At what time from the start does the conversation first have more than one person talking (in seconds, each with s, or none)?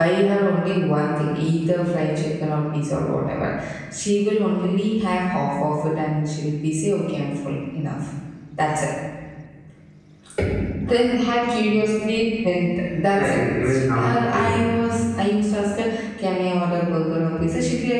13.2 s